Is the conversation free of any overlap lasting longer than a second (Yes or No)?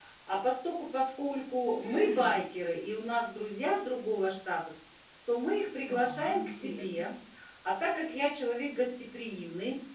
No